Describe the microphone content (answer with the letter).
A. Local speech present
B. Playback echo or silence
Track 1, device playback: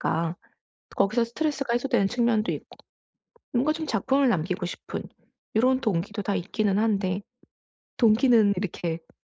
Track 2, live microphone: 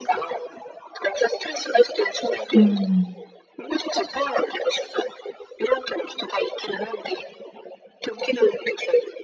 A